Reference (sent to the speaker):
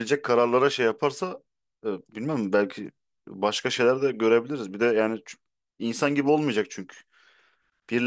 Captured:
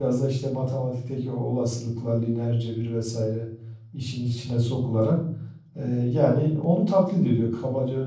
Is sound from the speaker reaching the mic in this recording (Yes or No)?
No